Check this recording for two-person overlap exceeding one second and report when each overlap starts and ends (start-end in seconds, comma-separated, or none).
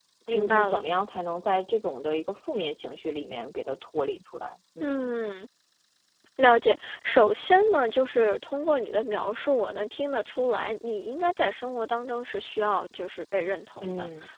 none